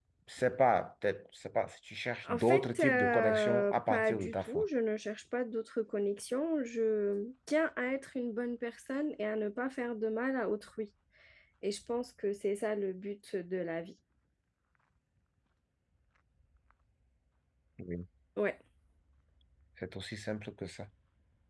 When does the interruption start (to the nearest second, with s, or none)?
2 s